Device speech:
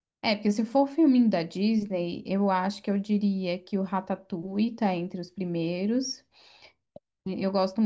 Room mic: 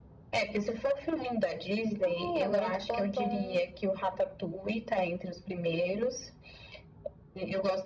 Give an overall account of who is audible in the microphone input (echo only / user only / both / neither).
both